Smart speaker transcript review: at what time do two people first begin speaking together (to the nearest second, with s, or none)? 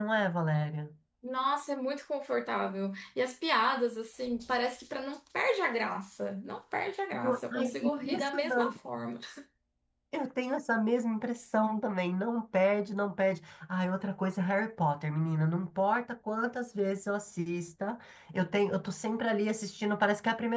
7 s